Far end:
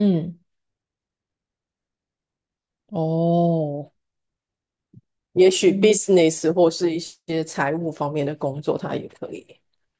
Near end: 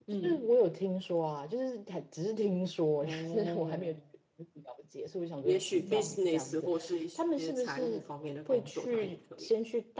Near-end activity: present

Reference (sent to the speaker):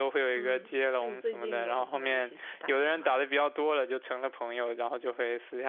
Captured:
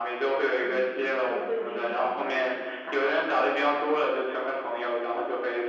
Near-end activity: none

